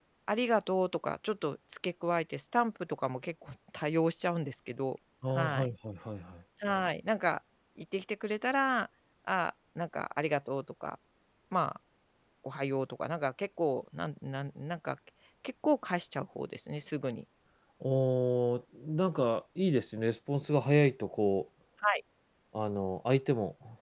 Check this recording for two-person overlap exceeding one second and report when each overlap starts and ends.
none

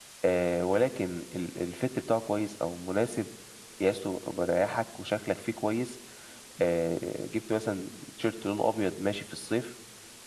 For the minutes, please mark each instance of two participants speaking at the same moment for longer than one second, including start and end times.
none

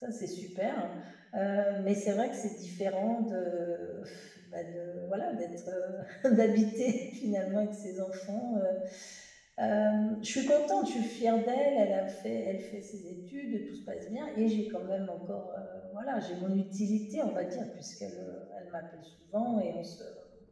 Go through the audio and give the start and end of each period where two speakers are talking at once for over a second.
none

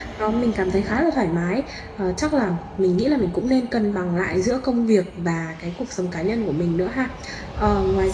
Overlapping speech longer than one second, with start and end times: none

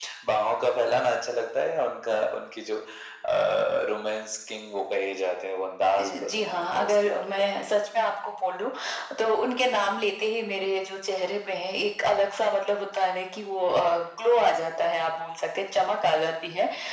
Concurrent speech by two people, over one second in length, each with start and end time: 6.0-7.7

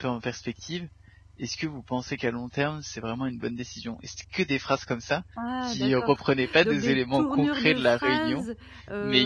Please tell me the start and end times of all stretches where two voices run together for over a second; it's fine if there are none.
6.6-8.4

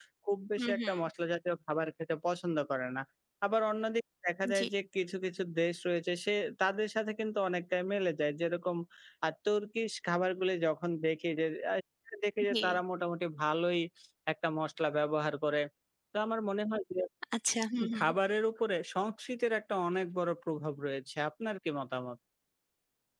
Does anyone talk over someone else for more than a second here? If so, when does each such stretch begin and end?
none

